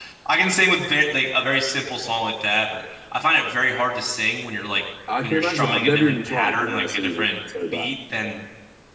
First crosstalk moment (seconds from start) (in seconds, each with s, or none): 5.1 s